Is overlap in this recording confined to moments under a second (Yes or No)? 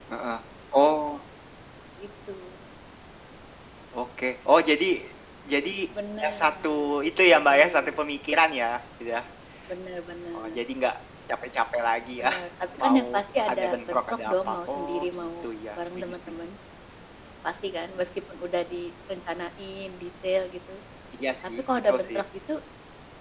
No